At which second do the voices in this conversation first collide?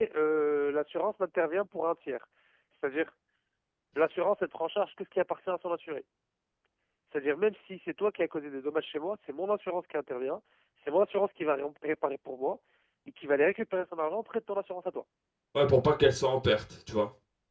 none

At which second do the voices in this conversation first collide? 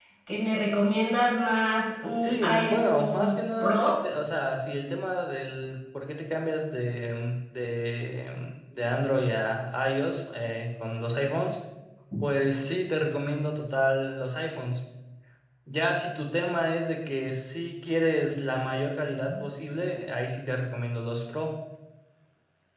2.2 s

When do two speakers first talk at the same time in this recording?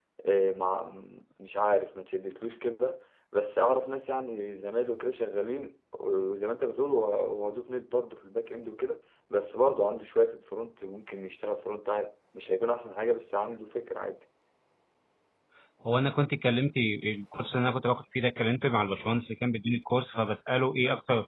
none

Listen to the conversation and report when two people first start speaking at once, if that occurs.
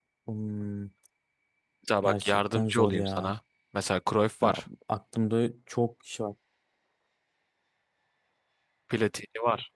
2.0 s

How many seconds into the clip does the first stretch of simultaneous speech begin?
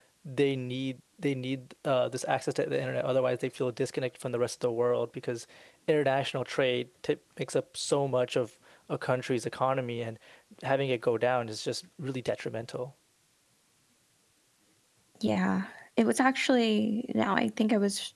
none

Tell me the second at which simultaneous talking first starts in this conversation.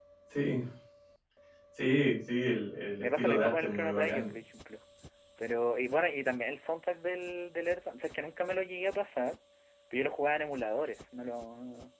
3.0 s

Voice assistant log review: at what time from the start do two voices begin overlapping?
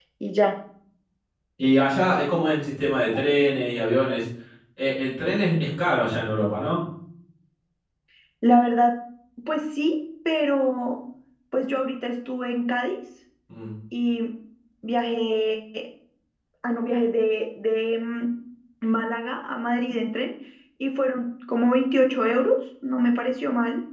none

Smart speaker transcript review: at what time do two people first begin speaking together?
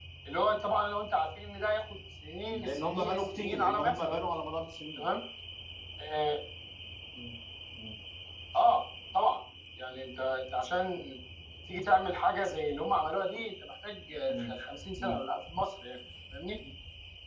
2.5 s

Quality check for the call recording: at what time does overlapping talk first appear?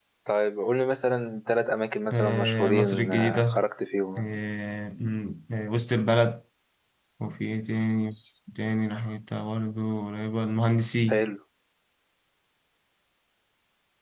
2.1 s

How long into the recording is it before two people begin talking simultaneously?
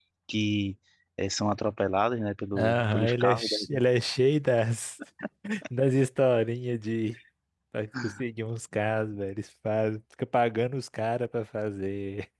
2.5 s

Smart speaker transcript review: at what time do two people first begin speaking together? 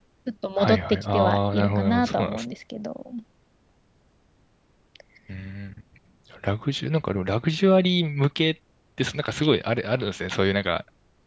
0.6 s

